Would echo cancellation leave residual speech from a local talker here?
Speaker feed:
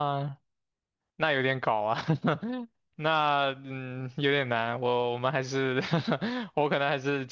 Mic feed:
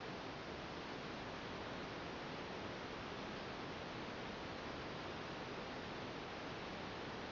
No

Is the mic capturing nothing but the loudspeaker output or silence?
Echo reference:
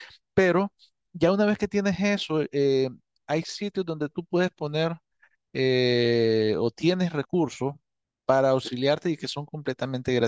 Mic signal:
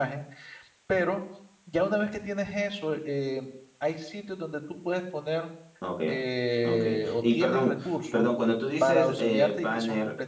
No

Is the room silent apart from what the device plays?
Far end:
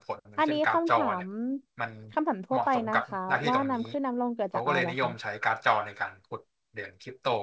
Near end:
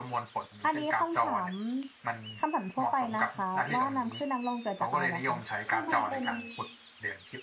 No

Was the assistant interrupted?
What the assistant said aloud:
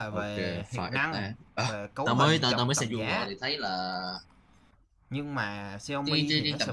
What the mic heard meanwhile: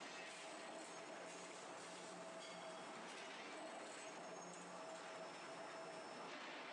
No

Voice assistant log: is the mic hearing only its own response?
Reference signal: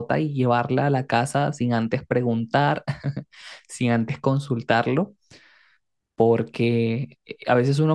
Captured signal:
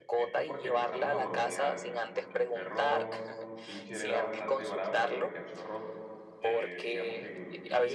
No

